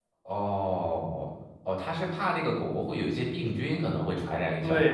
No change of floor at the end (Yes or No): No